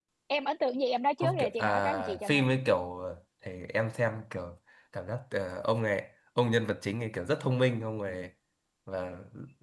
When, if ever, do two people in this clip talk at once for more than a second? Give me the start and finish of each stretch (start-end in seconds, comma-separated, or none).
1.2-2.5